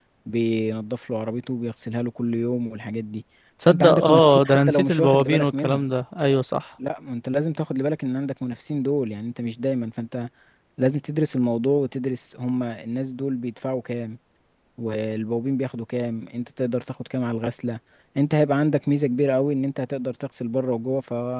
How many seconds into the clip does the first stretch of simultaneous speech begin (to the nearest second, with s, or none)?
4 s